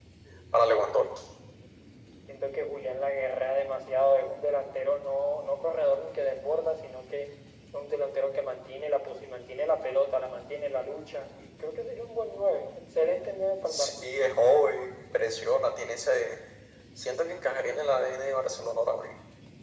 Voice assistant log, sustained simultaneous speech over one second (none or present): none